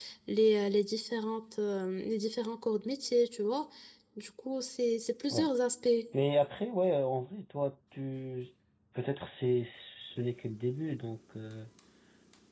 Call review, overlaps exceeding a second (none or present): none